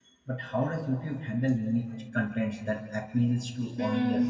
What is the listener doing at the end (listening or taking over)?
taking over